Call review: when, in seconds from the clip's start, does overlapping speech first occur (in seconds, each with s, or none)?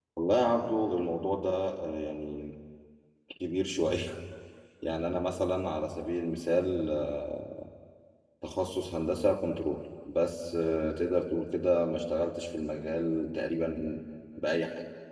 none